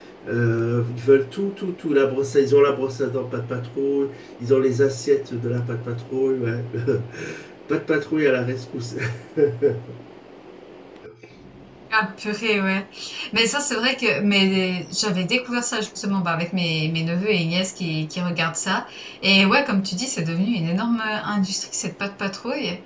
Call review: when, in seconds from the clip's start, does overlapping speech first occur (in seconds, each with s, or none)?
none